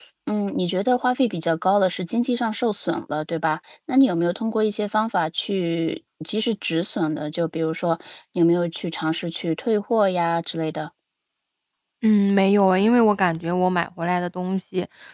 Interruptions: none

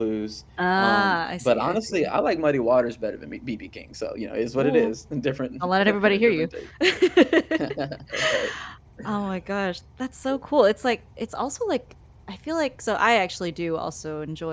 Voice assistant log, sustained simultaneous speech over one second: present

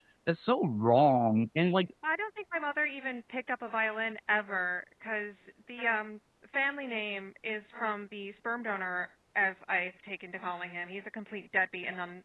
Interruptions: none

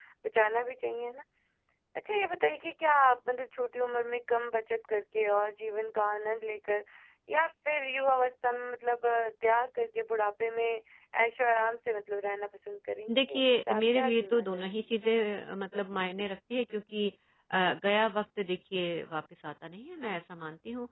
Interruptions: present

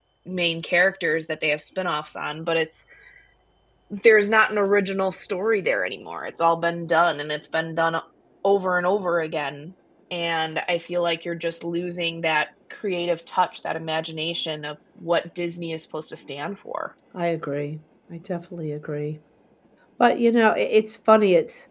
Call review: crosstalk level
none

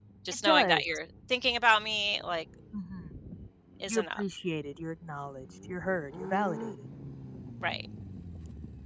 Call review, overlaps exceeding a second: none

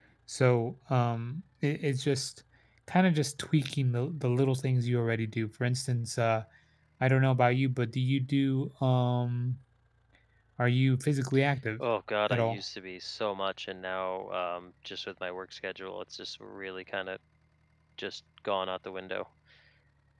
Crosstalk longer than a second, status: none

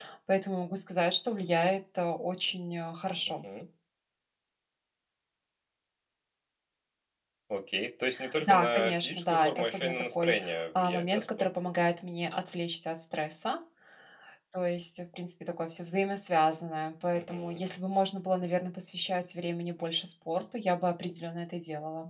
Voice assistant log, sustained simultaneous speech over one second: present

